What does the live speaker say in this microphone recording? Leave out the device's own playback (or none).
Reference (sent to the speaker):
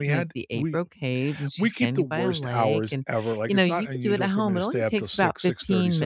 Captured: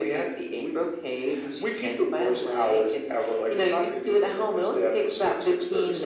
none